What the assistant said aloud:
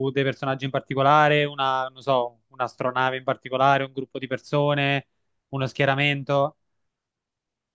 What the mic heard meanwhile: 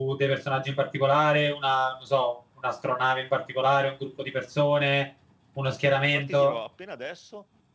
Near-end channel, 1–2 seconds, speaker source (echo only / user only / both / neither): echo only